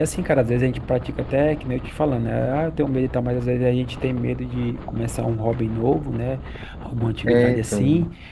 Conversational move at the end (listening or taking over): listening